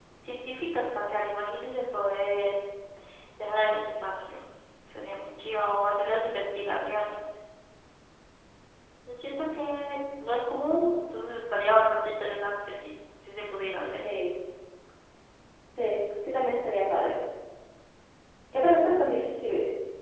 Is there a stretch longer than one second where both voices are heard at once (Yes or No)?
No